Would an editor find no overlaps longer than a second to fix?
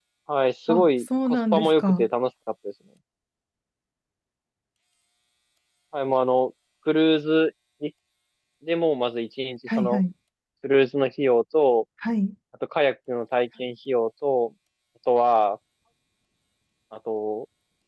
No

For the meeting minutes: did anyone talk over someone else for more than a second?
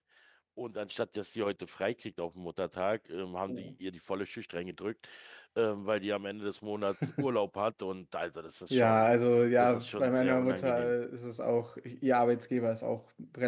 Yes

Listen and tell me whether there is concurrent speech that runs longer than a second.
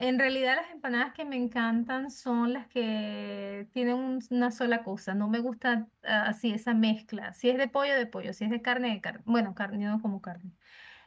No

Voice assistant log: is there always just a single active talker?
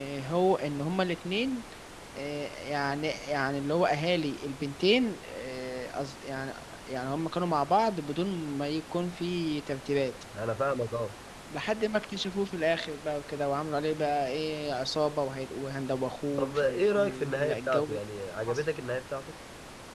No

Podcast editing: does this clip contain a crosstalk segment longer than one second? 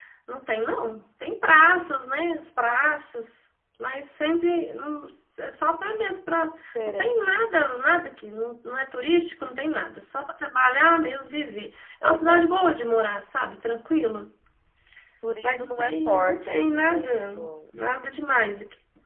Yes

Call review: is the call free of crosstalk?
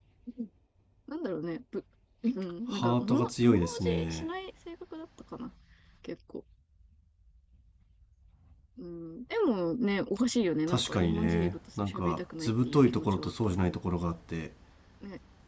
No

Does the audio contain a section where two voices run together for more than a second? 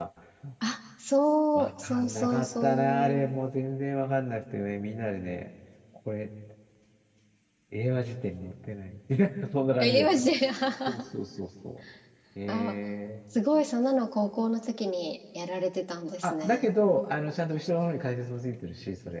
Yes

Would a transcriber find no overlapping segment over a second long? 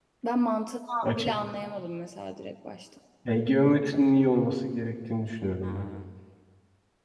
Yes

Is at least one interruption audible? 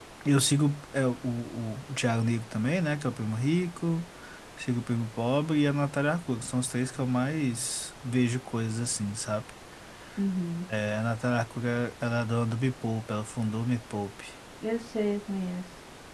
No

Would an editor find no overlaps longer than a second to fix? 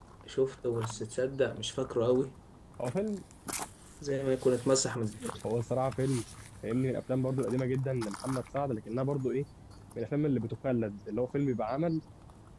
Yes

